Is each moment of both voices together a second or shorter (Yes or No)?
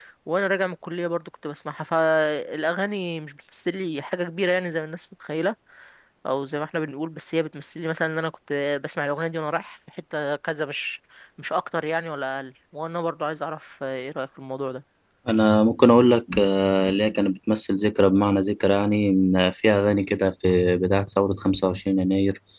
Yes